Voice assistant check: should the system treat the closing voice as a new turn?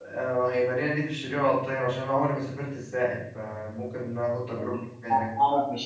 Yes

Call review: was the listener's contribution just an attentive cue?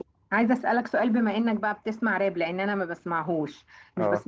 Yes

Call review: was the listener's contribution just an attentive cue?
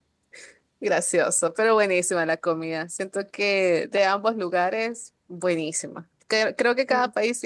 Yes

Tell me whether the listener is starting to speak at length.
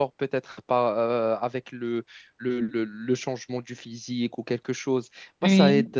No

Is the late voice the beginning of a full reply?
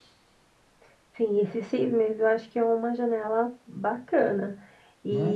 No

